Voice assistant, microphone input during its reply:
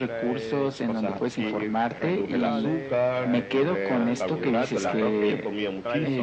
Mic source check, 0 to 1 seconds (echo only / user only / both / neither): both